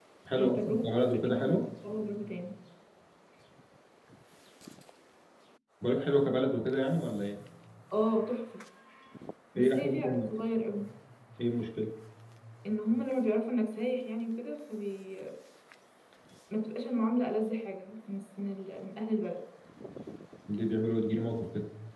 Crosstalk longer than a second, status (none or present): present